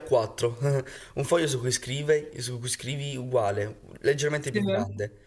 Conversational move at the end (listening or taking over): listening